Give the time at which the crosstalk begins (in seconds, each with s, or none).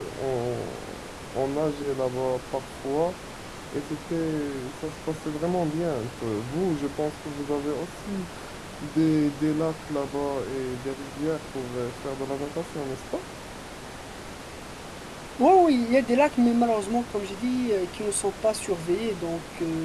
none